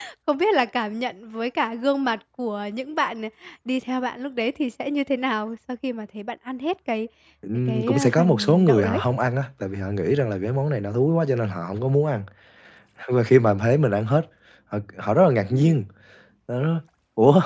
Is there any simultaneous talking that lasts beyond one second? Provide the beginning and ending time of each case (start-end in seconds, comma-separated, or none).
7.7-9.0